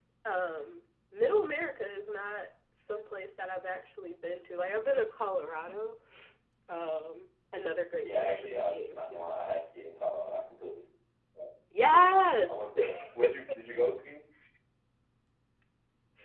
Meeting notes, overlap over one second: present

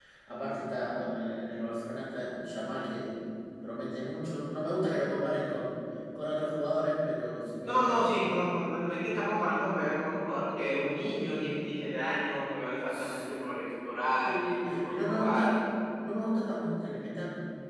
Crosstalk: present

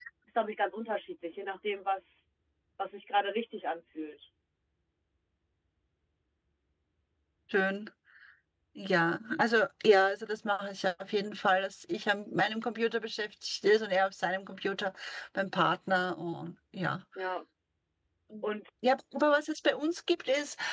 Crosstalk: none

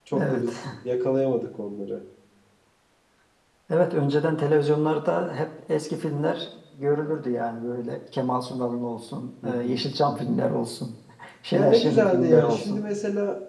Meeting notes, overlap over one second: present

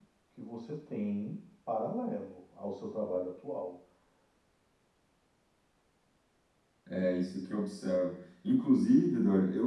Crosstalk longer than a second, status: none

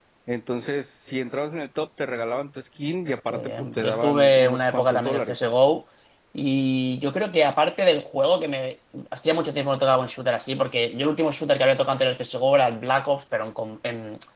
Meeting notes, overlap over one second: present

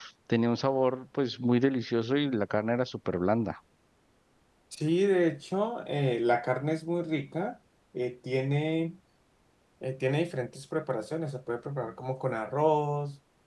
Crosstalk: none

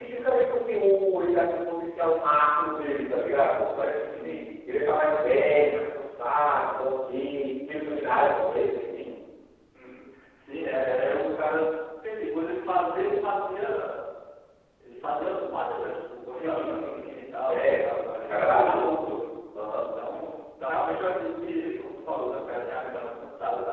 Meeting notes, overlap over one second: present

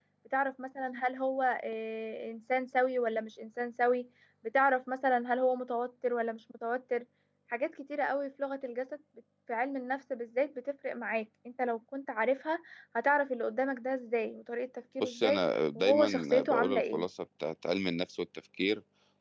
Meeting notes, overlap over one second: present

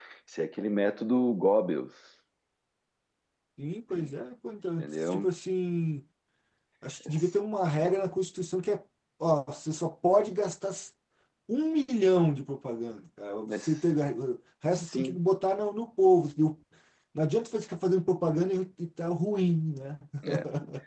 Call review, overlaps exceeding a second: none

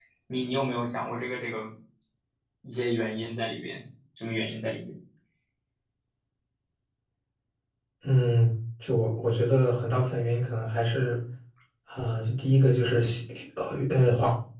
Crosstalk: none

